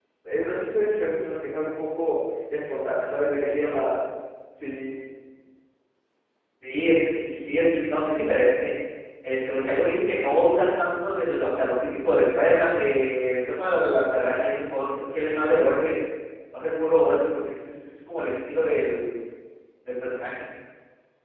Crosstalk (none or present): none